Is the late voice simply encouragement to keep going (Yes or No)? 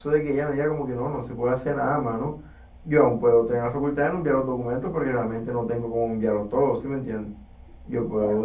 No